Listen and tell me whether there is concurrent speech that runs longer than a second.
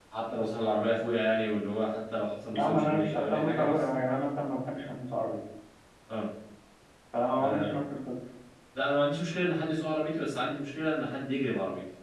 Yes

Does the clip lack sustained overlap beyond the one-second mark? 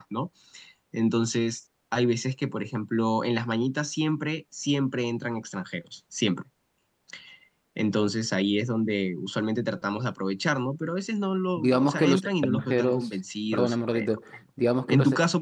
No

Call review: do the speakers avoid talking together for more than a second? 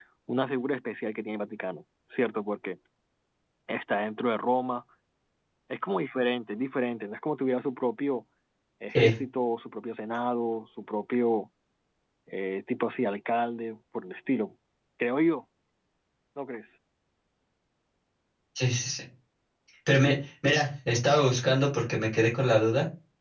Yes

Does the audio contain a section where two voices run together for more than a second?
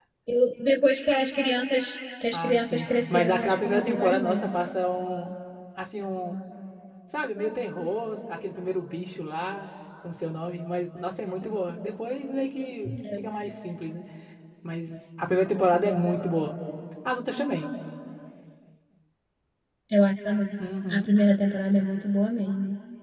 Yes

